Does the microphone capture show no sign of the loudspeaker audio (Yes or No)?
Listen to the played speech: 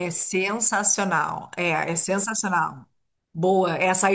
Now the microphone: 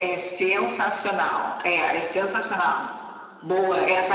No